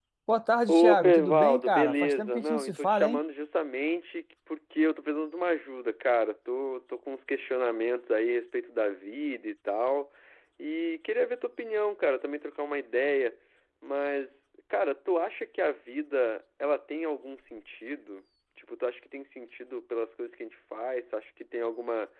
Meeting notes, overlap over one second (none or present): present